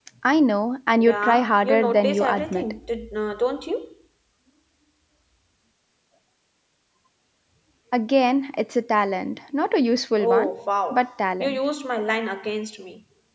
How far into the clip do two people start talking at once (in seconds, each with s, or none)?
1.0 s